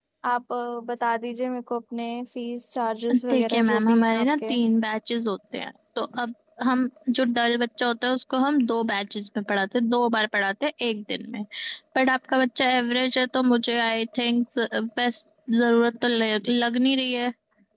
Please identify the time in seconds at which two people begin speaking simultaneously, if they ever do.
3 s

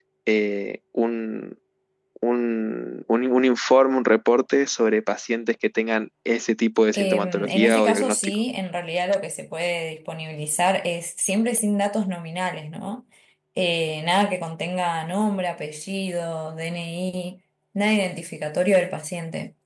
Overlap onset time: 7 s

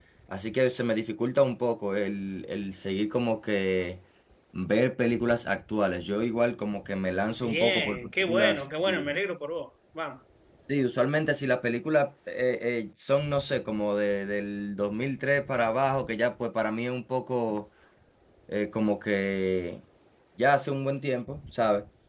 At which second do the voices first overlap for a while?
7 s

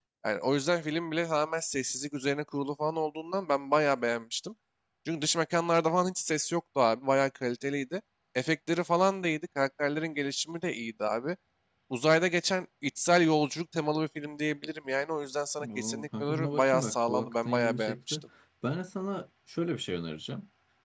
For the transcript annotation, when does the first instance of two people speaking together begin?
16 s

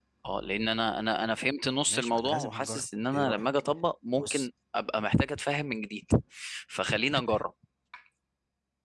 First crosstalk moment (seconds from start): 2 s

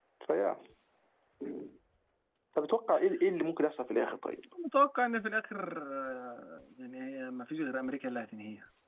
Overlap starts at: none

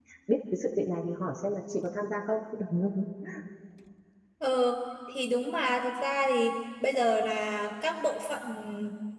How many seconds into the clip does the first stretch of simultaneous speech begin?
none

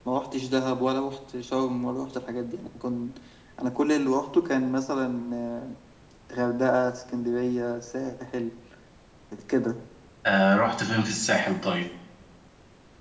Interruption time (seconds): none

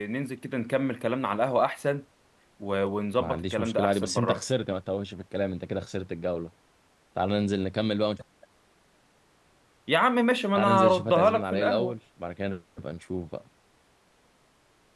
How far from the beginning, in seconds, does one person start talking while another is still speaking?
3 s

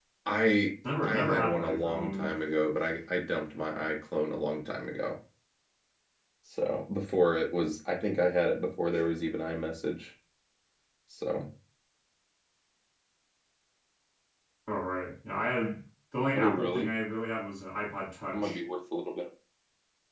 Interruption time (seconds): 1 s

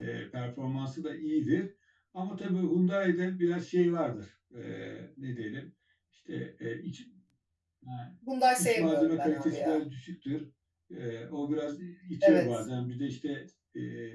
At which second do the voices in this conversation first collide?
9 s

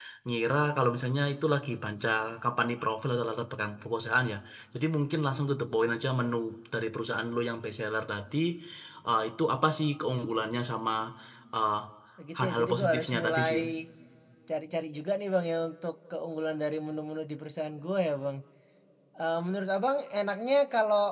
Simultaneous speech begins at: 12 s

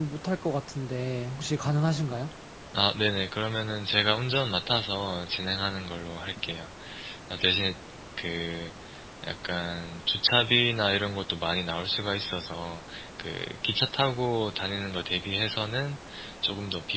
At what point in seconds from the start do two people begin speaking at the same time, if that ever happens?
none

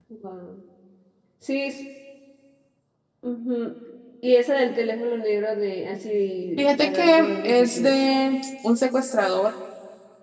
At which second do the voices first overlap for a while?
7 s

